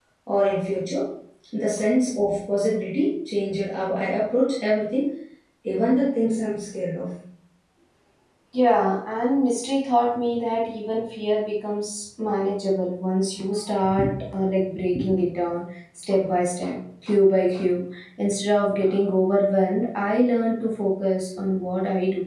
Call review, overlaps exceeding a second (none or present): none